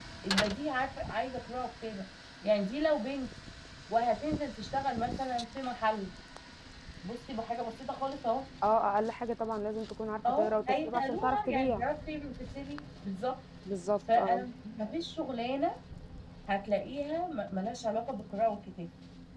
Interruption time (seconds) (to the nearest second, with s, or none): 10 s